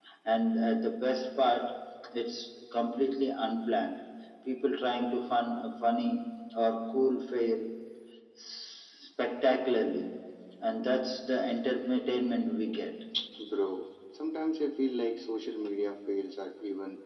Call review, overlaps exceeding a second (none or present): none